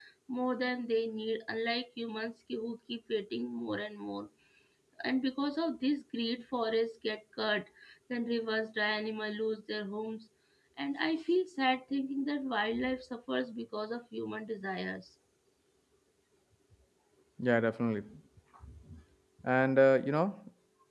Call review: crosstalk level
none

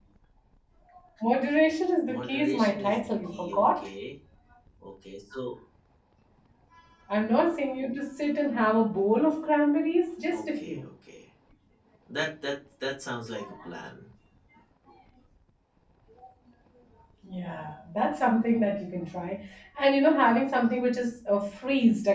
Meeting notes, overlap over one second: present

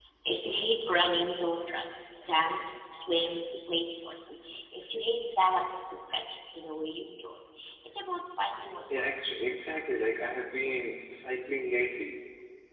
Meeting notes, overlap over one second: none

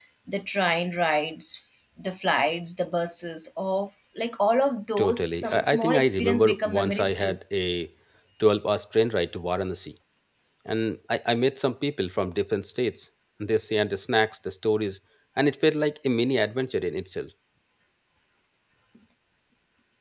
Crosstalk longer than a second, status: present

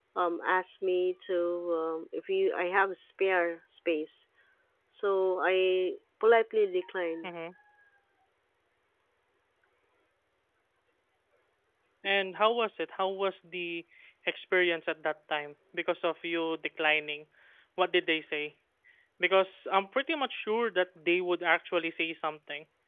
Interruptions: none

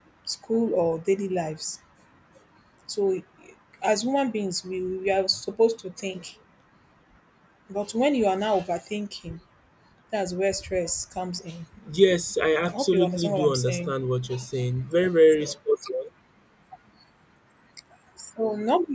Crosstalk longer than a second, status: present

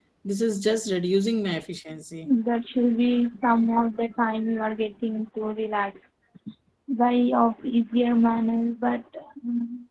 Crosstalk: none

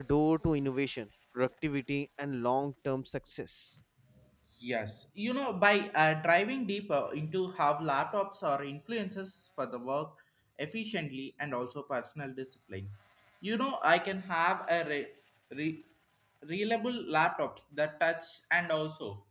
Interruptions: none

